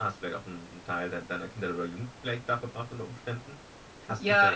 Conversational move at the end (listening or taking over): listening